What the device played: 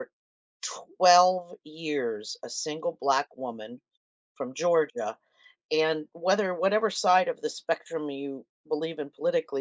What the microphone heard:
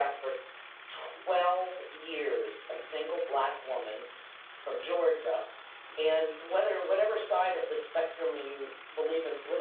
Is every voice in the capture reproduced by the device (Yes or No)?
Yes